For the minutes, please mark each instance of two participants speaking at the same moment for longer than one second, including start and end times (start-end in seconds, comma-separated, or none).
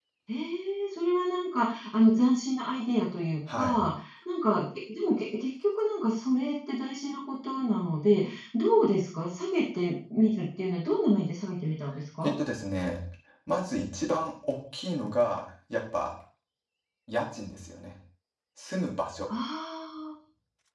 none